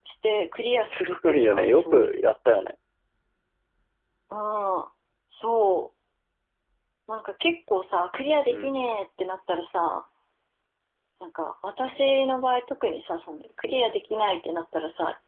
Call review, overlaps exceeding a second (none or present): present